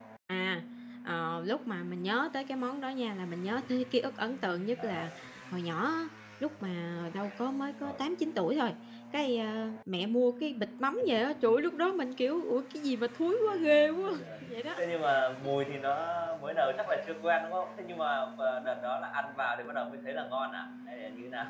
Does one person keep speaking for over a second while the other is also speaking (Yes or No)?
No